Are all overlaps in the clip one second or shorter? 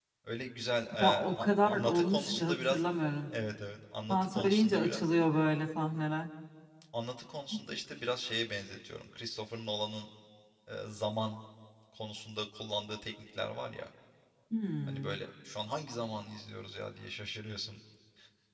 No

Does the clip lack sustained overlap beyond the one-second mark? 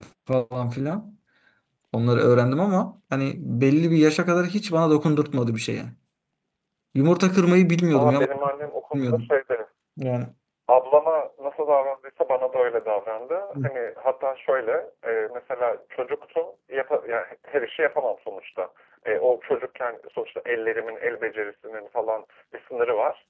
Yes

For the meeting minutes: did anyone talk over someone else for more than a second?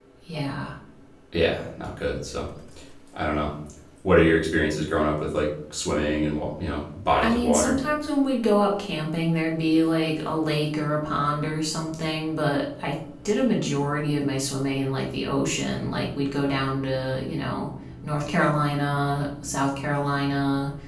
No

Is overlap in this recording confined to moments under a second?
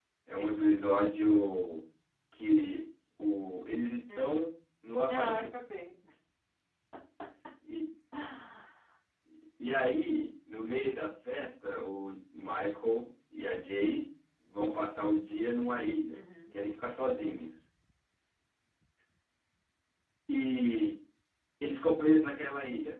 Yes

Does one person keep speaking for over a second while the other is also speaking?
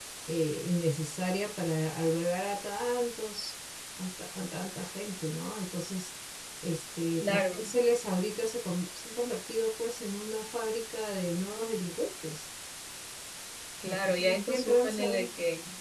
Yes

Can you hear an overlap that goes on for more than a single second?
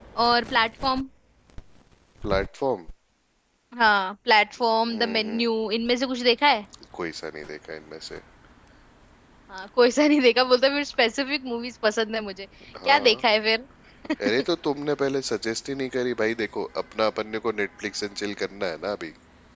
No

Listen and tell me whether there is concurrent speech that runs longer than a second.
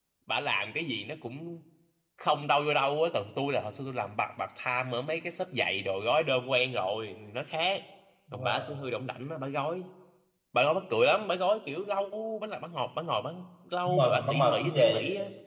Yes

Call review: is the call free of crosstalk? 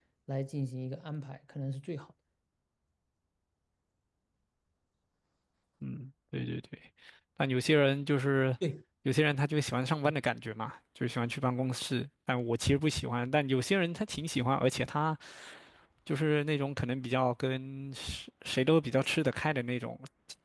Yes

